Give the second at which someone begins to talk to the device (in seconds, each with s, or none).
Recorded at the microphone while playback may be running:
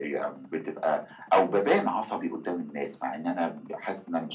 none